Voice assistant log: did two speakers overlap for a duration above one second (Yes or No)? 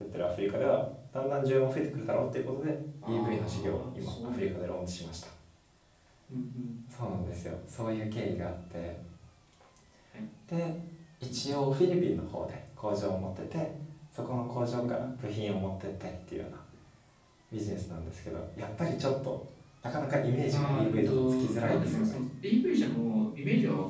Yes